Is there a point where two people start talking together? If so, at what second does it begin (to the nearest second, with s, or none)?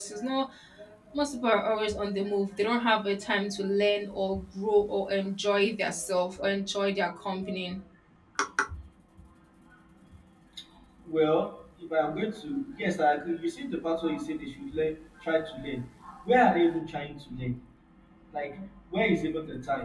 none